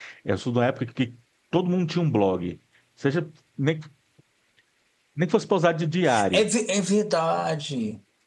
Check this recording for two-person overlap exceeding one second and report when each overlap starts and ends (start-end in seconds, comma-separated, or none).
none